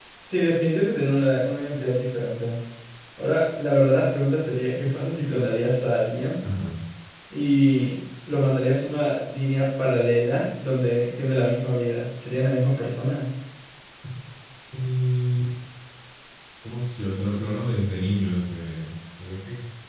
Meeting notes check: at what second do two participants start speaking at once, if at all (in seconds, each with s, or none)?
none